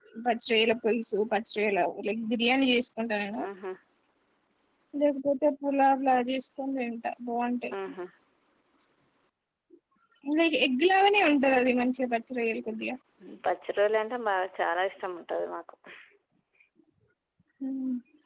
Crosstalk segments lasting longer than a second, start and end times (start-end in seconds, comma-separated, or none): none